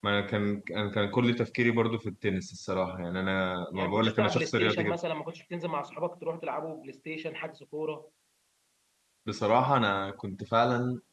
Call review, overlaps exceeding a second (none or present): present